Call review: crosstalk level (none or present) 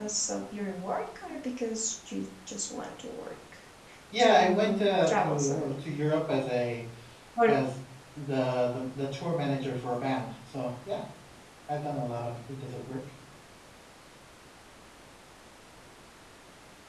present